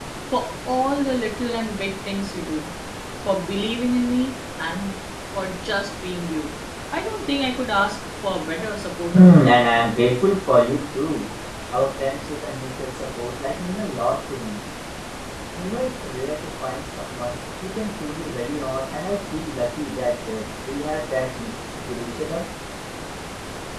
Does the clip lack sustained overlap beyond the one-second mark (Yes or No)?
Yes